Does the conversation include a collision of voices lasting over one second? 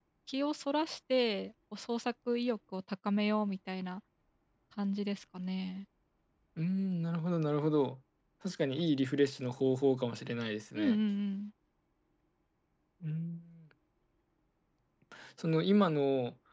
No

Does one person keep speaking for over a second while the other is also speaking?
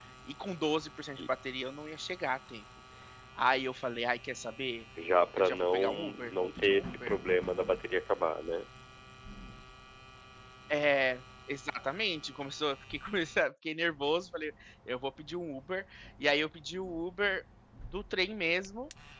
Yes, from 5.4 s

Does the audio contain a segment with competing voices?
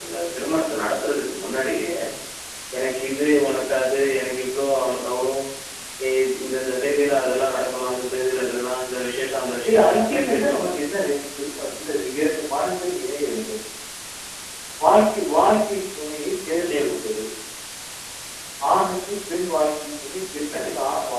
Yes, from 9.7 s

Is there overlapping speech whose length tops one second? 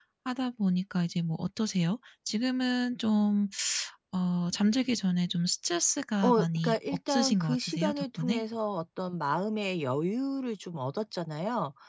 Yes, from 6.2 s

